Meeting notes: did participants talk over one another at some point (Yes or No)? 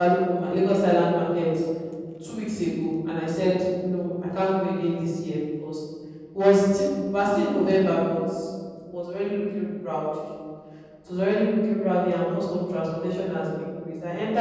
No